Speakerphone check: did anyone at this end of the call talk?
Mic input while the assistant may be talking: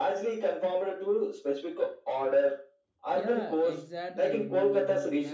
Yes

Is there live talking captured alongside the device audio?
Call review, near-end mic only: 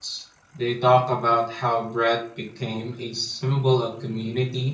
Yes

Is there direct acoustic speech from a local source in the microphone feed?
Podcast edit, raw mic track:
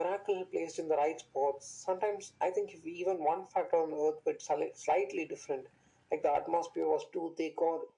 No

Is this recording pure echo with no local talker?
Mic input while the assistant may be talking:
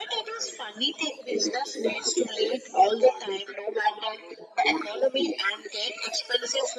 Yes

